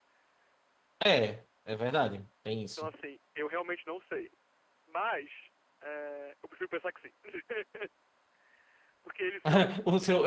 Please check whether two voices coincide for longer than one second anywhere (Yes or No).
No